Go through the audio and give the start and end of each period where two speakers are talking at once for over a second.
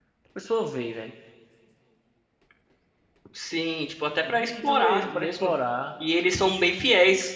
4.3-5.5

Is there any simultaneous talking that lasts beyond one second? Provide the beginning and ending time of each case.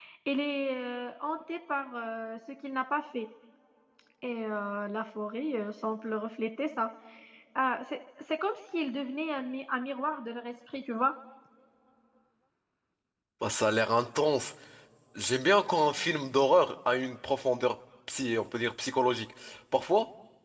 none

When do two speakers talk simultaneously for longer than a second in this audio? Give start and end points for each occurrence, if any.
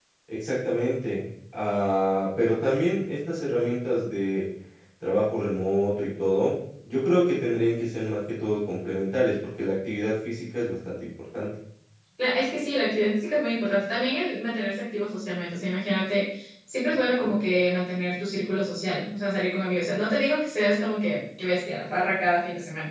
none

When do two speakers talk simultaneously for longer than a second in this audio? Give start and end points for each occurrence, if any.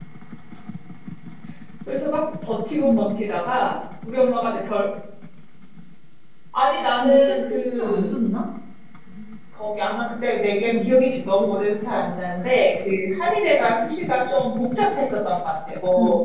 6.9-8.1

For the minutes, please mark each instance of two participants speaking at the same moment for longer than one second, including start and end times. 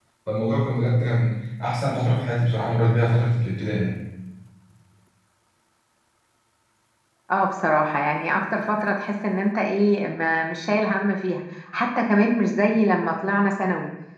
none

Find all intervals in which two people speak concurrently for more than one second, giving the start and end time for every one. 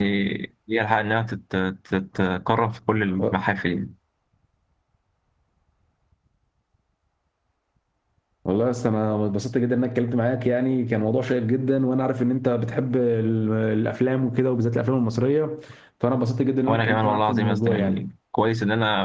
16.7-18.0

